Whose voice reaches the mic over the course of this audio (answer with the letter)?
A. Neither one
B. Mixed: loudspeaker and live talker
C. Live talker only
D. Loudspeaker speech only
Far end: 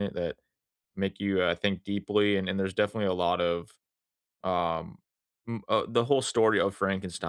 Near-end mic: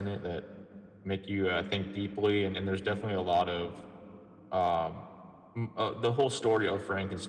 D